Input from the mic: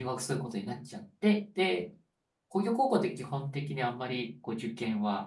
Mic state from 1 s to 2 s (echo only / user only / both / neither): user only